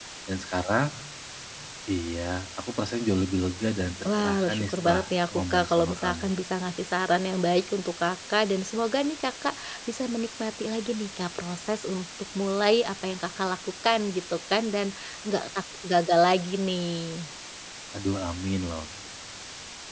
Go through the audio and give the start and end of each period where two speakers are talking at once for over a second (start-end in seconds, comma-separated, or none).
4.2-6.3